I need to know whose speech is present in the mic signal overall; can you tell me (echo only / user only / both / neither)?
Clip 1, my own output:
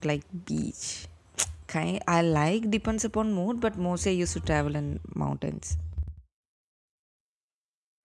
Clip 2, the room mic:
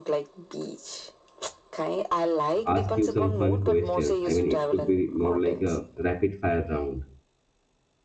both